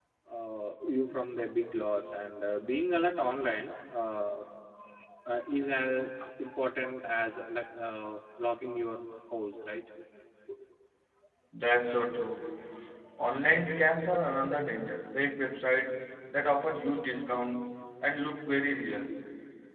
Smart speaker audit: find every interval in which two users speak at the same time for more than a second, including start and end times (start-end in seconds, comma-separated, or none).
none